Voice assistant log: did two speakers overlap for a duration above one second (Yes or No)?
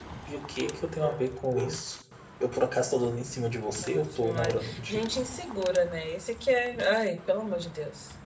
Yes